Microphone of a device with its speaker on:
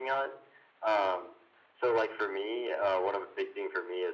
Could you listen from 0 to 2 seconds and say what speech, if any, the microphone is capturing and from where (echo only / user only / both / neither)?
echo only